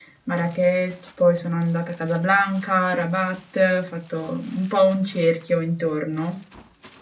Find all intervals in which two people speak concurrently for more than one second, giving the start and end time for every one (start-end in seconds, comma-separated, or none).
none